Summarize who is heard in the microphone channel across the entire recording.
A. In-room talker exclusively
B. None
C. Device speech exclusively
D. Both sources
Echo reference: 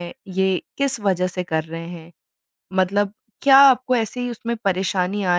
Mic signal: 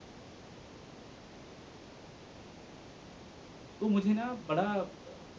A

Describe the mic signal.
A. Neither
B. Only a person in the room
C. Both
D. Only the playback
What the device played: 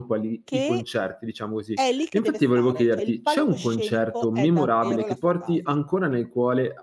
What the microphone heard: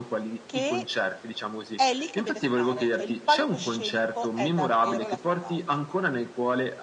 D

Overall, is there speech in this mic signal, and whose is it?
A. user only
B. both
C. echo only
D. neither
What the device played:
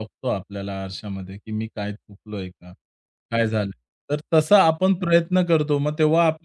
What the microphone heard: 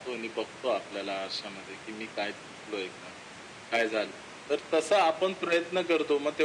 C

